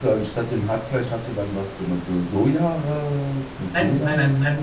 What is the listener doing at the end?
taking over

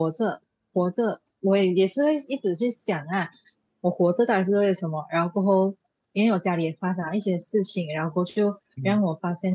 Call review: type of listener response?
listening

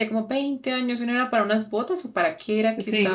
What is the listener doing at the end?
taking over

